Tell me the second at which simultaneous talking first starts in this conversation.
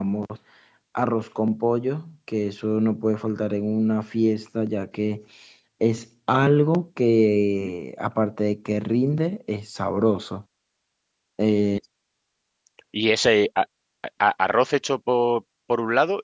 none

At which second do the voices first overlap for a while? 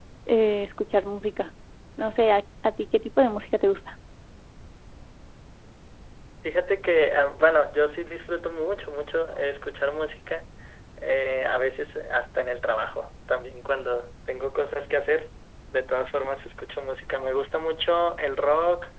none

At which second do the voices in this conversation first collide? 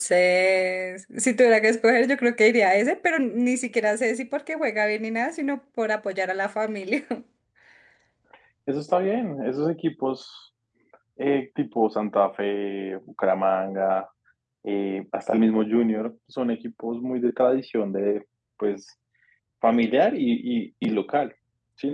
none

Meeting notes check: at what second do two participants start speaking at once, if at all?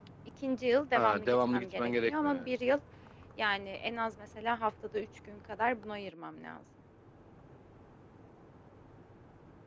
0.9 s

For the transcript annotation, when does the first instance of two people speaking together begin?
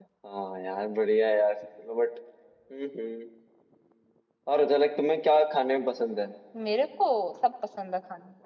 none

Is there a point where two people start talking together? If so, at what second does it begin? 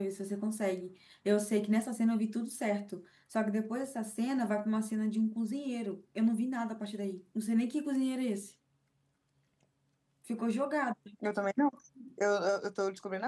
none

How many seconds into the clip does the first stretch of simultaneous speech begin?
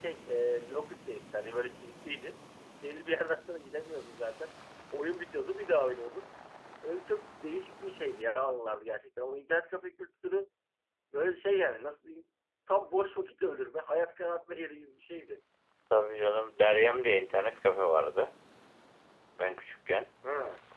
none

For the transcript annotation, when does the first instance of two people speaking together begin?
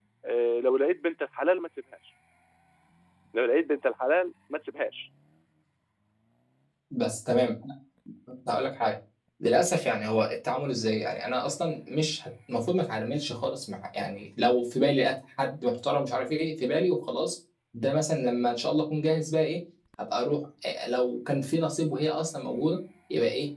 none

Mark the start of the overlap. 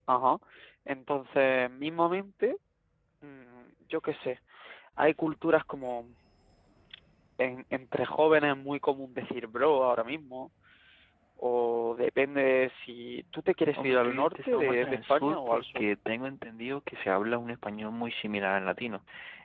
13.8 s

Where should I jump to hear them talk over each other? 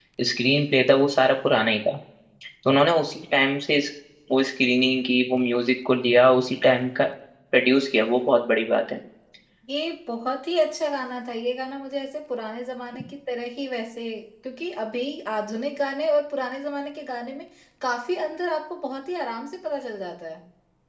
none

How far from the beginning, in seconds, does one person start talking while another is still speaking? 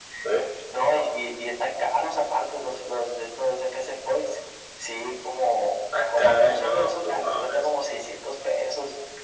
5.9 s

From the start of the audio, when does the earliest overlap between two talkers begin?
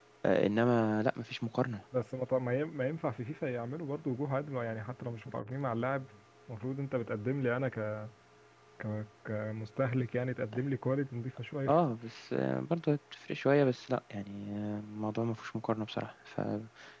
none

